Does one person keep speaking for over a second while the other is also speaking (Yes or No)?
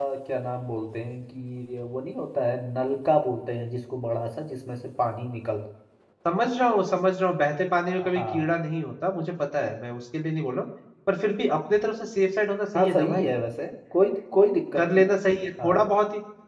No